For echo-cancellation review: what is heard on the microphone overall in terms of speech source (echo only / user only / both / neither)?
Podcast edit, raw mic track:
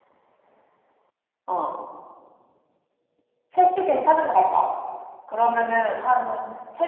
echo only